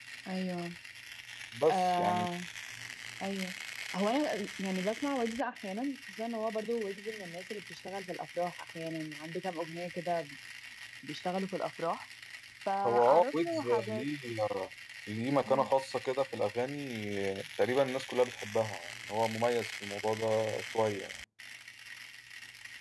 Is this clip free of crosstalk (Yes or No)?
No